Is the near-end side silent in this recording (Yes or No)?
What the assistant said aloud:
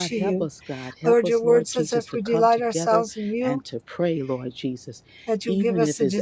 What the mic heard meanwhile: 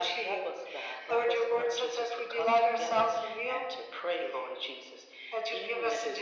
Yes